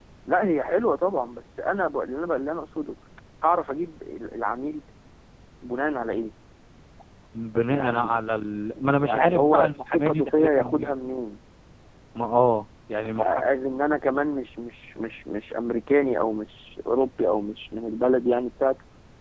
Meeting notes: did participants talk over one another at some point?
Yes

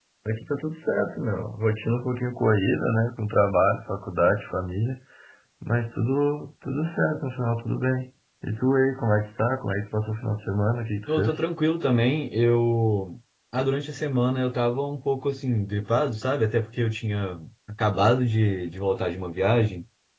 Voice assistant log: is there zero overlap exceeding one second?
Yes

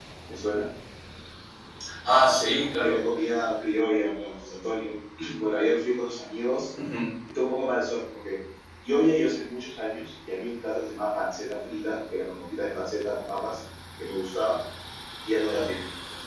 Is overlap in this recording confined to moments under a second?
Yes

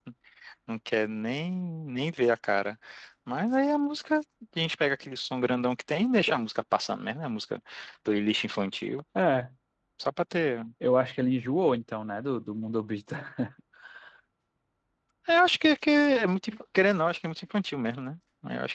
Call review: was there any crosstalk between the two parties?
No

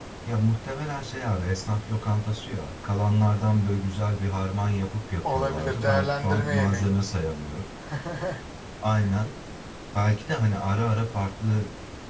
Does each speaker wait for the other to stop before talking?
No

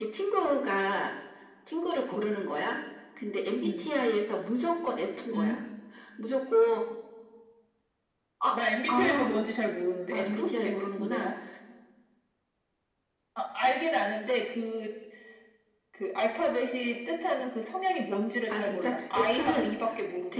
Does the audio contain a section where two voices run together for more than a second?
Yes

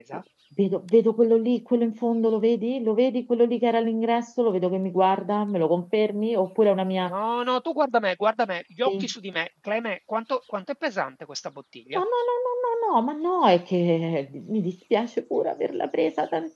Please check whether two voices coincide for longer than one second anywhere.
No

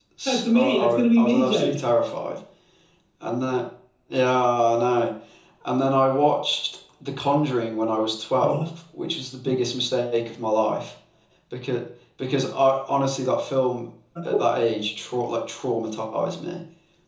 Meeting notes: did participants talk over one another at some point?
Yes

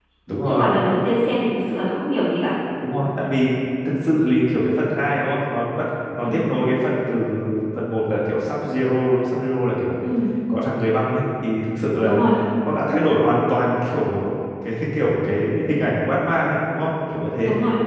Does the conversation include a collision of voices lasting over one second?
No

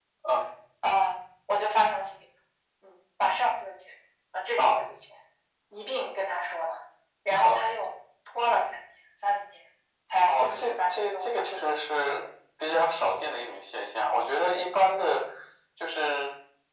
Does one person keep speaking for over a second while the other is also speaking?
Yes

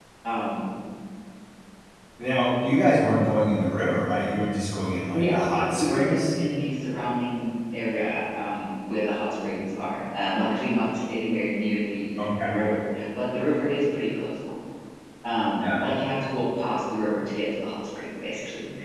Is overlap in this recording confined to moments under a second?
No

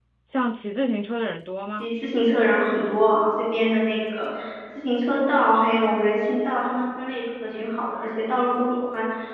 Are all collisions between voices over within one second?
Yes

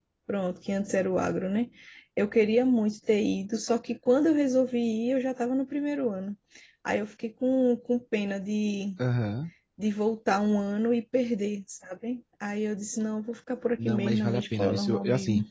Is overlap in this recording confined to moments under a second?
No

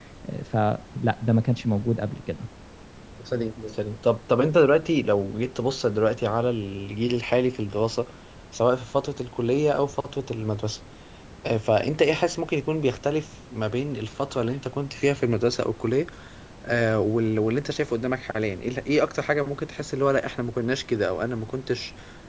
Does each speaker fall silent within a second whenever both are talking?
Yes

